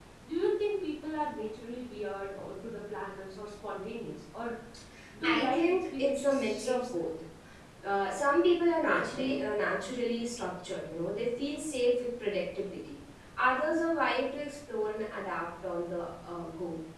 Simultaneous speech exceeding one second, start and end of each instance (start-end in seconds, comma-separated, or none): 5.2-7.1